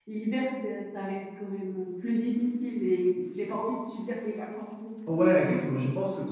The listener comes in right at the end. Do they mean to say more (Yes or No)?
Yes